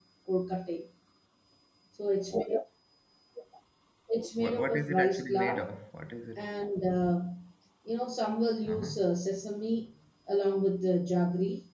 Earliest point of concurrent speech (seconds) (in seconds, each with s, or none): 4.4 s